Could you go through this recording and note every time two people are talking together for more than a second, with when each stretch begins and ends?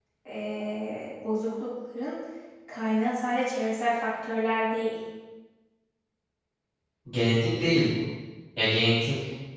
none

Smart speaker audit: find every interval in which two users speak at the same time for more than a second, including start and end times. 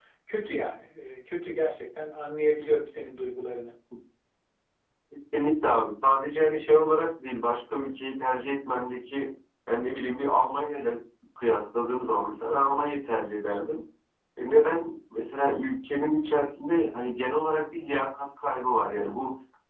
none

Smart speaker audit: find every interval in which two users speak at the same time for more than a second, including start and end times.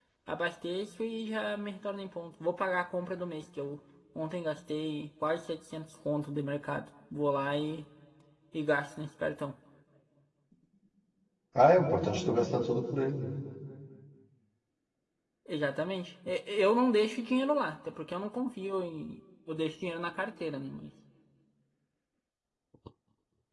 none

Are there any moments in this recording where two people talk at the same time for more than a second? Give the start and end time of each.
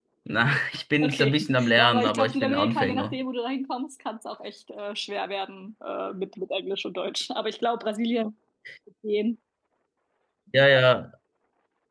1.0-3.2

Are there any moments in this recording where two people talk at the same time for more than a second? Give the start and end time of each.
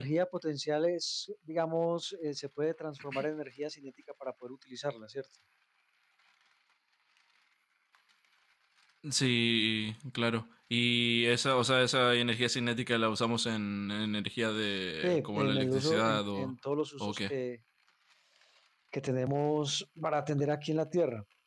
15.0-16.5

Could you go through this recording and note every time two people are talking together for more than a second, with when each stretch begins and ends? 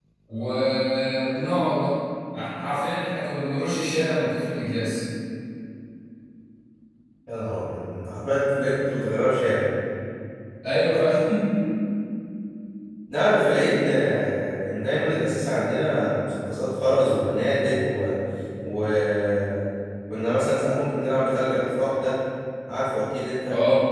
none

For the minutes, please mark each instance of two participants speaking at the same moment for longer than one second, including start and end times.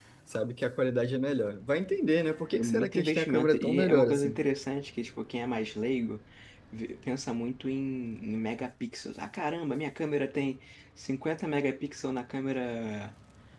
2.5-4.4

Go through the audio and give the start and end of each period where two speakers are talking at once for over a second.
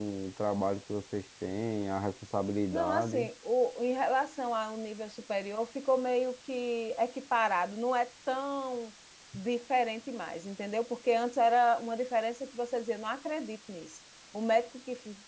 none

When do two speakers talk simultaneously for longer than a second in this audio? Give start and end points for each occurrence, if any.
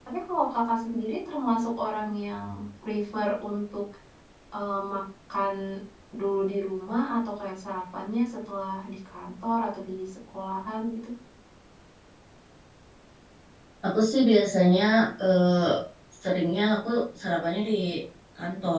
none

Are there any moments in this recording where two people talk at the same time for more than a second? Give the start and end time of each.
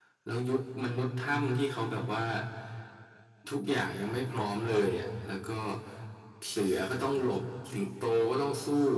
none

